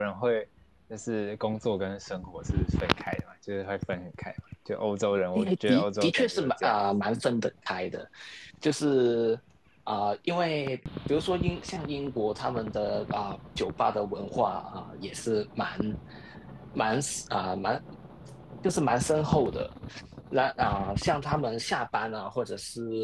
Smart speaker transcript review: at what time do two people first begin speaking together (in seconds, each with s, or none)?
5.4 s